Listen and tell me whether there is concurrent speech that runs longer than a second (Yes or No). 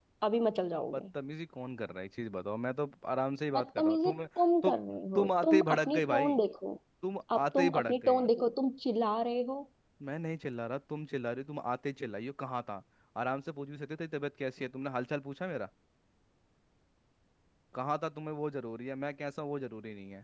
Yes